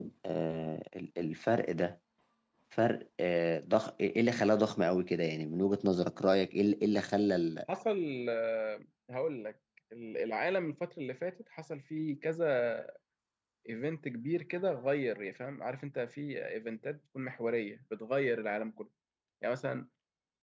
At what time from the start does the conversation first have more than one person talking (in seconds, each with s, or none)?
none